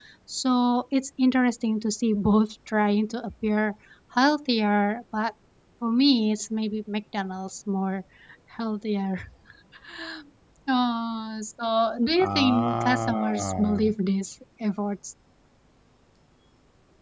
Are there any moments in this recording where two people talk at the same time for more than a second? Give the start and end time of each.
12.2-13.9

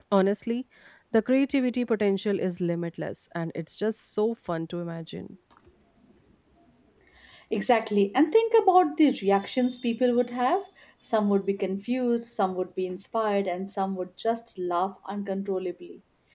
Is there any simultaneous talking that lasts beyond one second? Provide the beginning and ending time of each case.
none

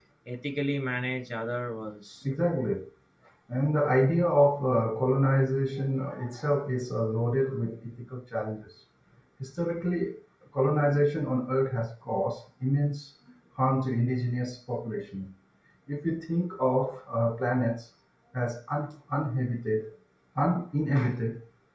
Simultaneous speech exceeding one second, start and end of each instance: none

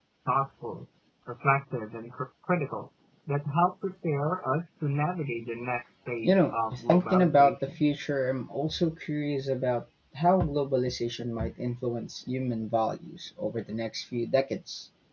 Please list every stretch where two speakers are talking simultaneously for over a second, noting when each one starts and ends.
6.2-7.7

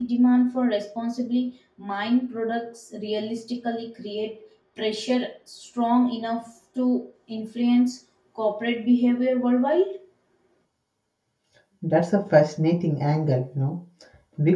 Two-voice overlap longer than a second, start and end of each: none

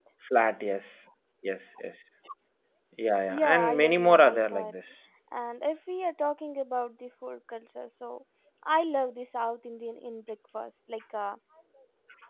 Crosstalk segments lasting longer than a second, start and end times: 3.3-4.7

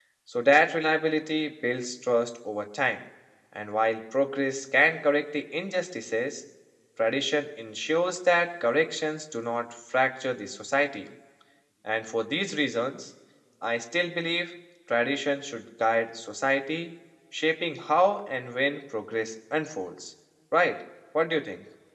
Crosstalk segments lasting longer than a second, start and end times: none

